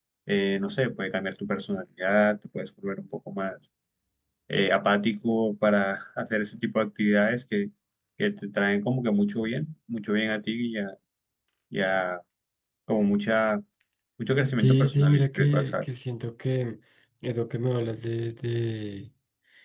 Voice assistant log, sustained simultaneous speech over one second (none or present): present